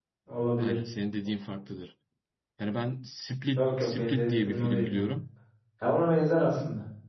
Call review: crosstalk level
present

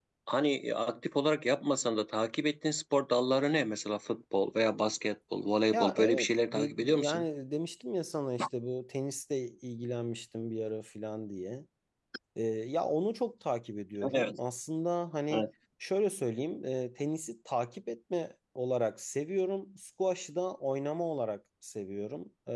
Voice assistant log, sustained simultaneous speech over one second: present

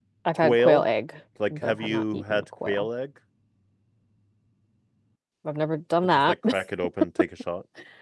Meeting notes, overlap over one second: present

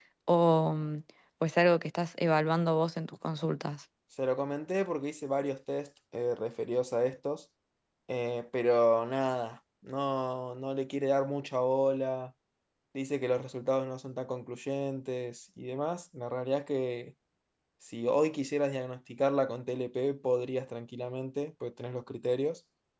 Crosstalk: none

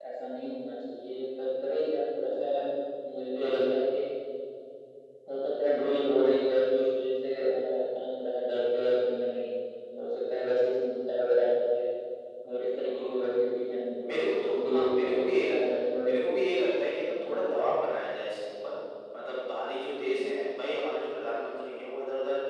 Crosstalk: present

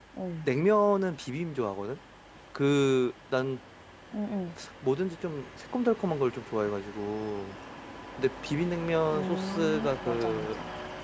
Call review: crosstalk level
present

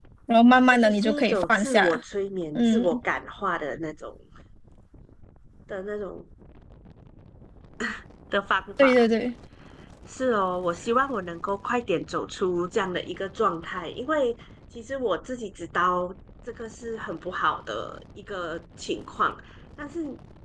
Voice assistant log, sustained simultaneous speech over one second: present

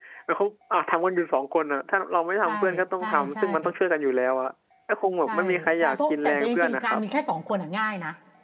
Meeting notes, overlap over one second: present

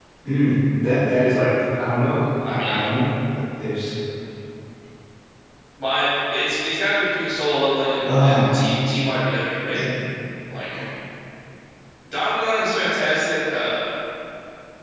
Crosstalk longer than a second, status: none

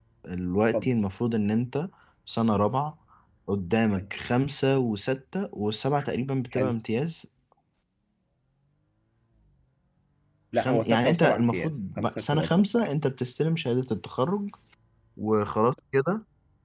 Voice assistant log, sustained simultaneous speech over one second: present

